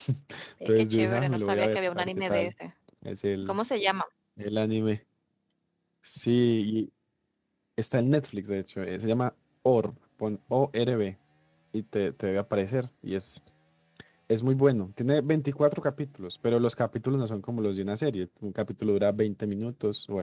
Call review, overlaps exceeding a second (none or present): present